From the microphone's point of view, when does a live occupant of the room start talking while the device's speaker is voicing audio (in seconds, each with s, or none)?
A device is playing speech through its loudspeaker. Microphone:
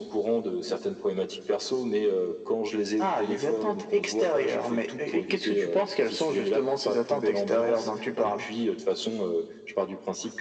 none